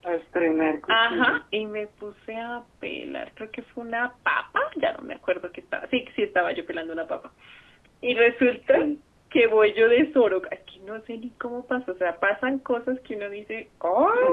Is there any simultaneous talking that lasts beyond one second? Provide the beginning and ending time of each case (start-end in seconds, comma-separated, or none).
none